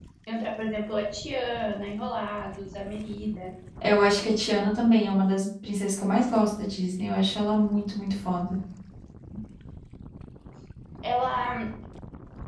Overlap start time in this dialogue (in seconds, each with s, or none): none